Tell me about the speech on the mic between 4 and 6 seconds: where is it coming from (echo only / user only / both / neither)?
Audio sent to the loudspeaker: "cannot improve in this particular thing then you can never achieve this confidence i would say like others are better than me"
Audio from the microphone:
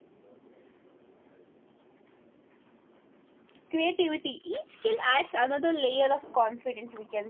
user only